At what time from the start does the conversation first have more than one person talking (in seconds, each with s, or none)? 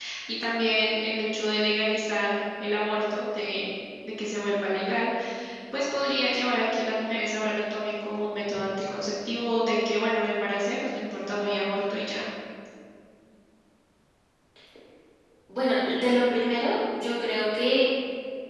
none